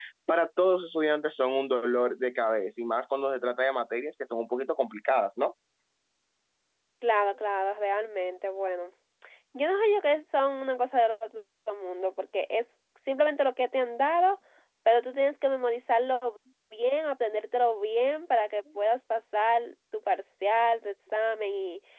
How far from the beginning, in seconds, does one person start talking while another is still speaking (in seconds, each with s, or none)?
none